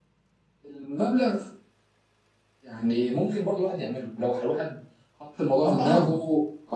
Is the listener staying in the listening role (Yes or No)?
Yes